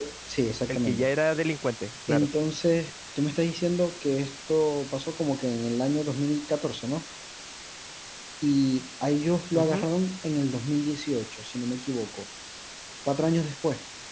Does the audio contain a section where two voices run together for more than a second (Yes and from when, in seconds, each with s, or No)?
No